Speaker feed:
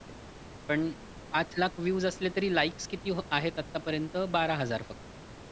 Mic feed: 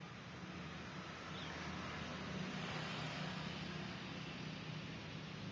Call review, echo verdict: none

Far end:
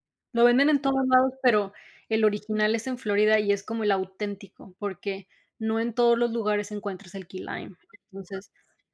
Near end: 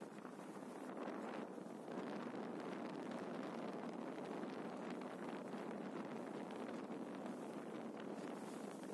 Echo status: none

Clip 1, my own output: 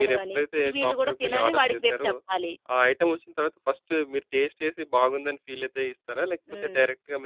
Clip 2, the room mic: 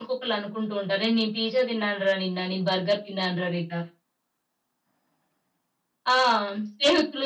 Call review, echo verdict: none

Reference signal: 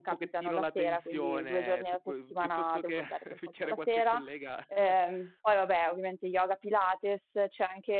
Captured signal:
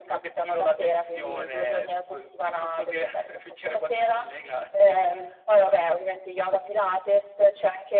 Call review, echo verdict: present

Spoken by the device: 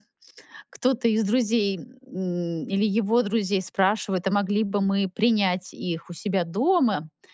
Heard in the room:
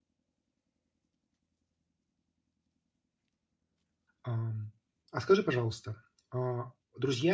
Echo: none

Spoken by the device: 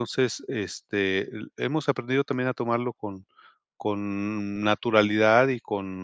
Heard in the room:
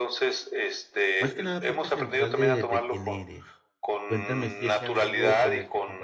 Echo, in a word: present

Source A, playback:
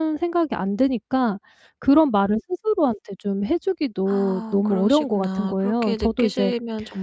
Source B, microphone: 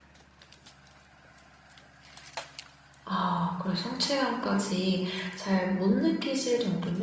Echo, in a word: none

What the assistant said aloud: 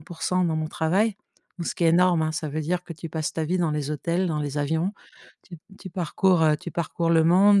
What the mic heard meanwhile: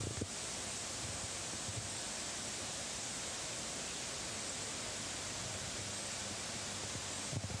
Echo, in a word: none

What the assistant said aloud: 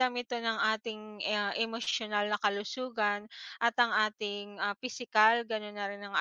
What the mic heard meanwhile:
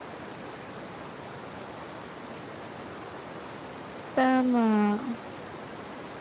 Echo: none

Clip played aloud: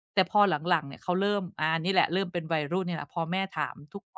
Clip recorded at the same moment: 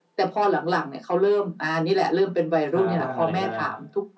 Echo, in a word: present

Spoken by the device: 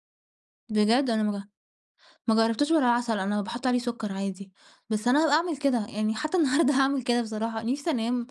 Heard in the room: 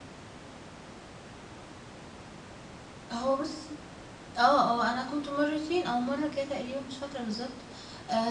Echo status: none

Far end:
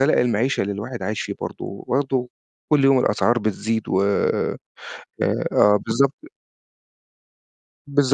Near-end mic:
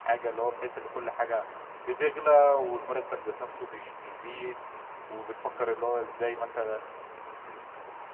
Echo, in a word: none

